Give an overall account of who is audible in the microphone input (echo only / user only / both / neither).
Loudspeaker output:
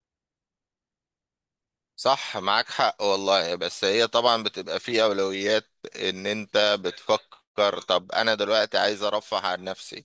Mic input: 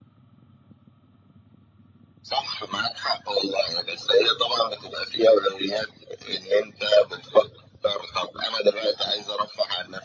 echo only